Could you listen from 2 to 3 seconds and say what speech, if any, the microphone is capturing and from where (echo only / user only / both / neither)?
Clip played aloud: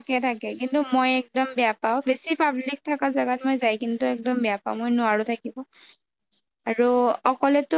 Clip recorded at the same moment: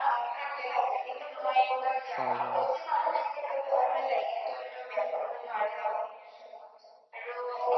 both